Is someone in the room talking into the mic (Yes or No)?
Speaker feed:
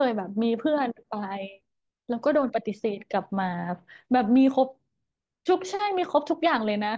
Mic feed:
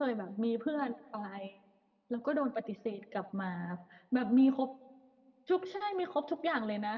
No